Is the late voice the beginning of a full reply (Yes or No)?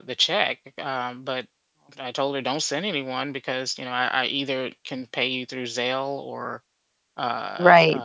Yes